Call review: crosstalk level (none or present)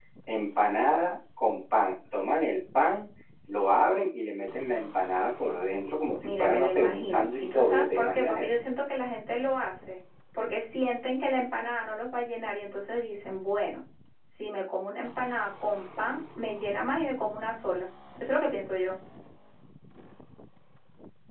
present